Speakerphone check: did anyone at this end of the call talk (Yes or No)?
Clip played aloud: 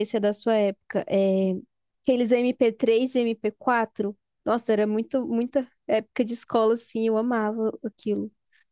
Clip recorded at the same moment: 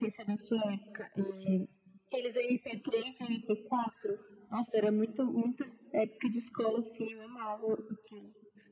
No